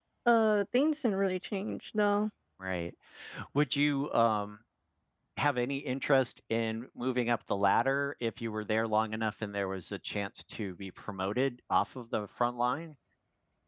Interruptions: none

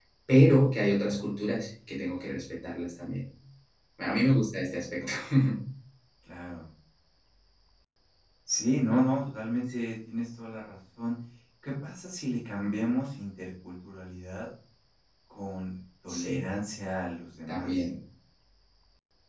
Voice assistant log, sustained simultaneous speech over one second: none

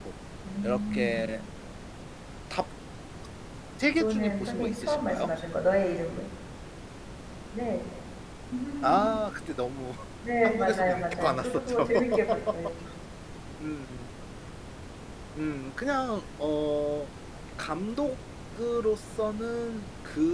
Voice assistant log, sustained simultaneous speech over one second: present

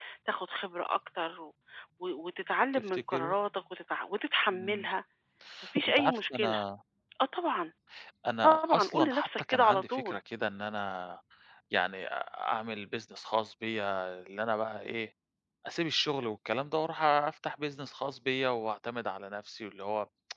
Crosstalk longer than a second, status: present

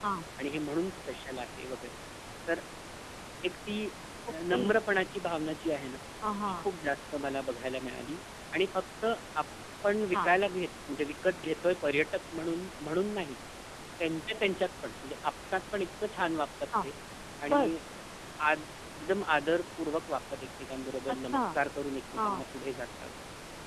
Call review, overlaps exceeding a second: none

